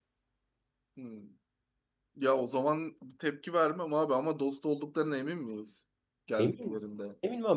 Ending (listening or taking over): taking over